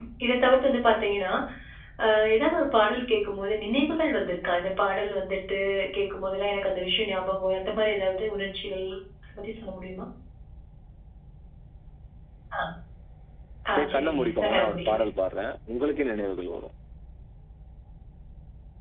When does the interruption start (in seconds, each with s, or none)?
13.7 s